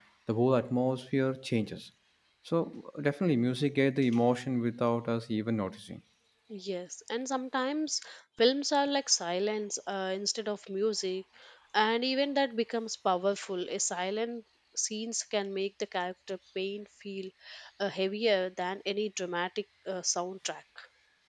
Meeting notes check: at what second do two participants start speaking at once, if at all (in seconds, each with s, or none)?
none